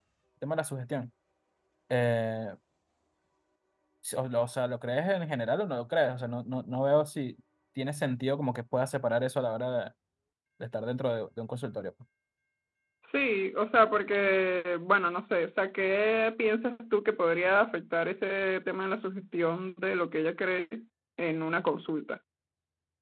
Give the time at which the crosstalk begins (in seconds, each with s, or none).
none